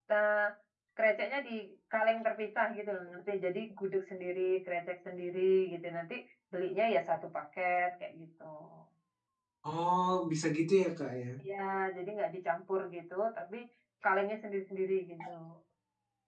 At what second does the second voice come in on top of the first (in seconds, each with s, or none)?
none